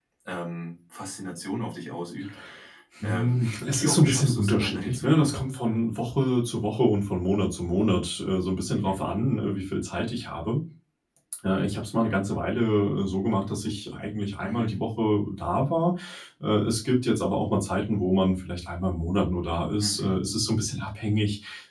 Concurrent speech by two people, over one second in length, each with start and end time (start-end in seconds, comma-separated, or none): 3.0-5.4